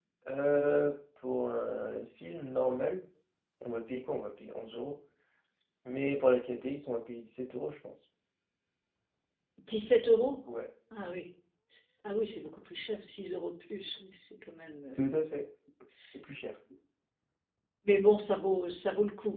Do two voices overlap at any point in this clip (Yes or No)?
No